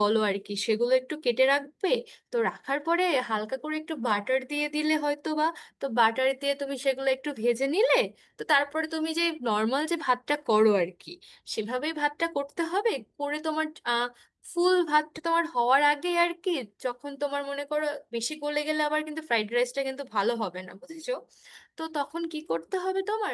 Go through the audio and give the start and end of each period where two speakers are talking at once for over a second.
none

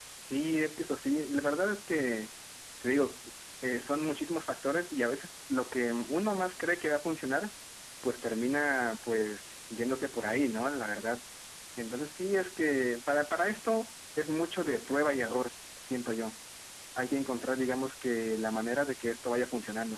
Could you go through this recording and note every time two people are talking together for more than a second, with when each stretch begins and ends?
none

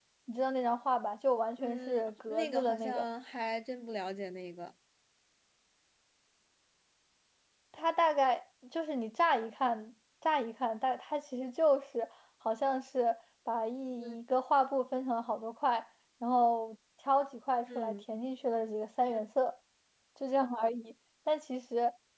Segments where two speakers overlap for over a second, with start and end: 1.6-3.0

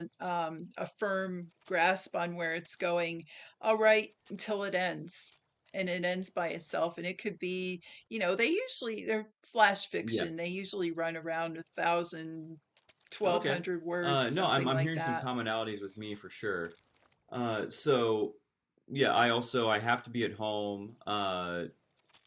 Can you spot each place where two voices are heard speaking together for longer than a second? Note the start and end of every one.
14.0-15.2

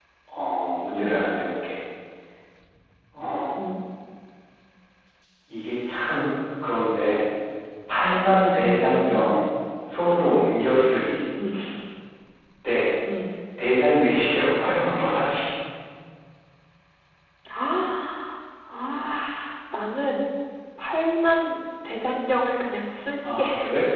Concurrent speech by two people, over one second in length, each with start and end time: none

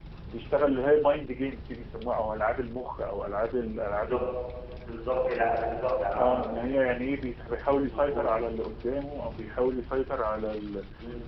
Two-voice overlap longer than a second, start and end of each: none

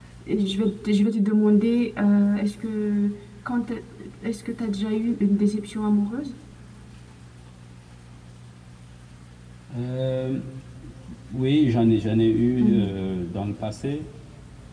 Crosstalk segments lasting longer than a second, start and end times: none

